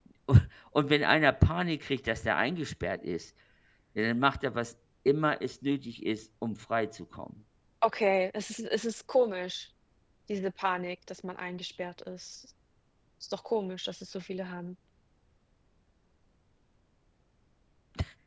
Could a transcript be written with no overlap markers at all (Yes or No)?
Yes